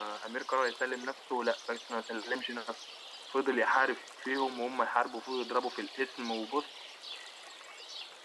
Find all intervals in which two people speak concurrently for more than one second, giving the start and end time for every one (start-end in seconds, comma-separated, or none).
none